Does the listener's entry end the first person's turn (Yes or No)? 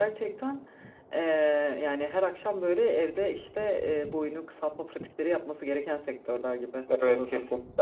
Yes